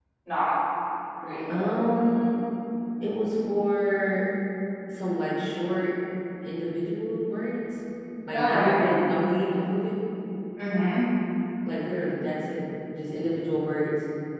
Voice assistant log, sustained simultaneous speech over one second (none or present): none